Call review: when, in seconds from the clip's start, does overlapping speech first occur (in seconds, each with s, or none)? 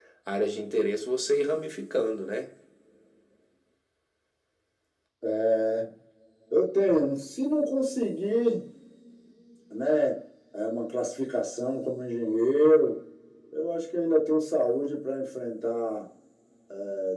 none